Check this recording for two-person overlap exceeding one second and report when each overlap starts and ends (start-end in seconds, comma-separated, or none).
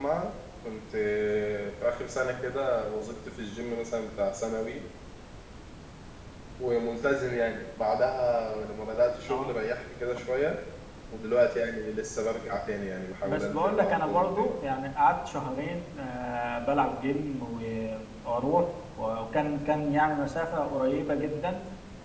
13.2-14.5